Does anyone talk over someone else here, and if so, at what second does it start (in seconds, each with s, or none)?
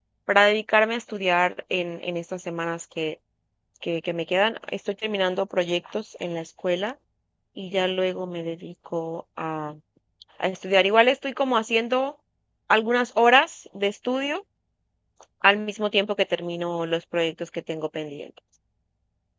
none